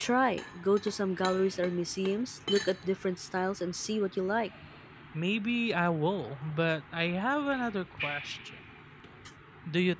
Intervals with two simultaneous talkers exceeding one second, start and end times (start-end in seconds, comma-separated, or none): none